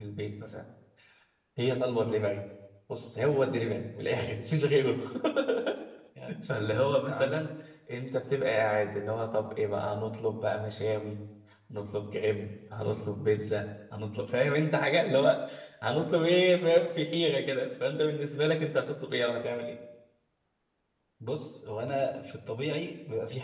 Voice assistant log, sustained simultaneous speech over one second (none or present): none